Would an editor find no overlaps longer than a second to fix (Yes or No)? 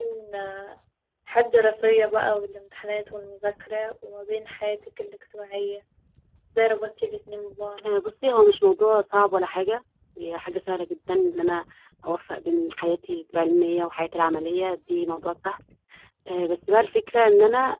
Yes